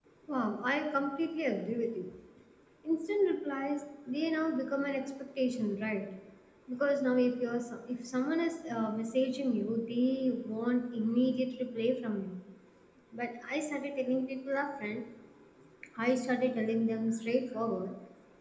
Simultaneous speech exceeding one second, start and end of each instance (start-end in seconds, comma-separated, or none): none